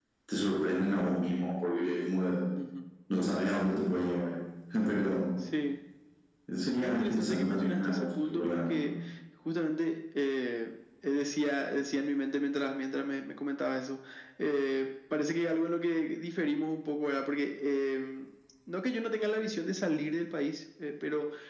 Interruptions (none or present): present